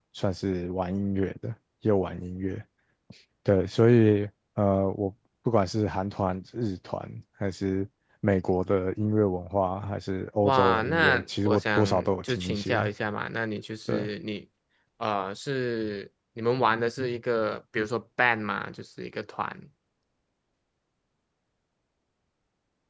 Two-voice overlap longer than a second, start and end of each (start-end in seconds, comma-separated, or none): 10.4-12.8